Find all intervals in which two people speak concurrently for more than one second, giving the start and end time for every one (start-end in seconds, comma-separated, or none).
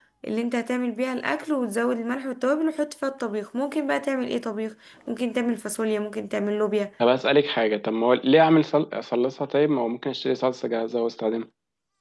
none